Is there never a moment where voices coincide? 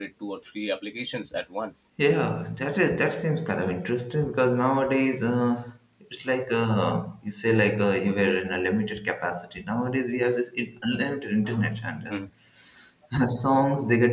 Yes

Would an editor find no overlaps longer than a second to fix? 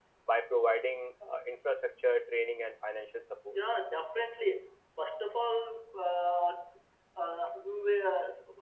Yes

